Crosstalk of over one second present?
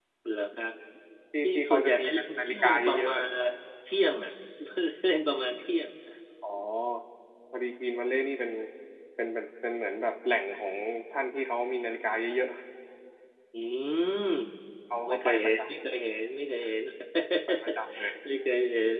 Yes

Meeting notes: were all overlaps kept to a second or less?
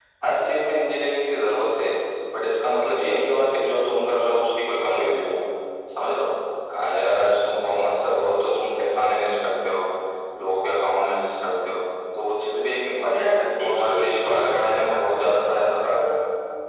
No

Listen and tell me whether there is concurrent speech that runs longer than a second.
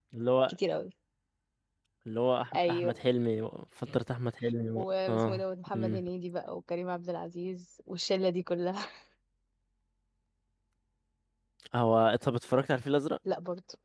Yes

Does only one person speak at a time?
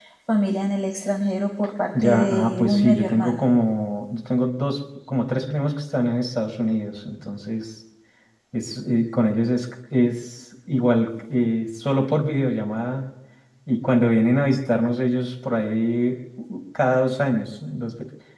No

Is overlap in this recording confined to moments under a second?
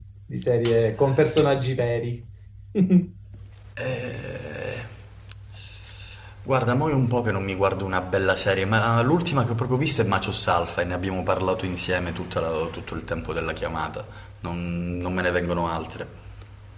Yes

